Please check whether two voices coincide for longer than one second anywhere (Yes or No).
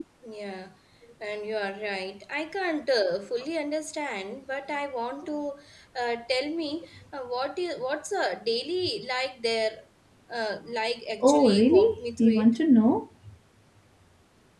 Yes